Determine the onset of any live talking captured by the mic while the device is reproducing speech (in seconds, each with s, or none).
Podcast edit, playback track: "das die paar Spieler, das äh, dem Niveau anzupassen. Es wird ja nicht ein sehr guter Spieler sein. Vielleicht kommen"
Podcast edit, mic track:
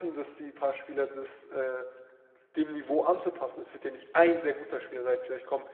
none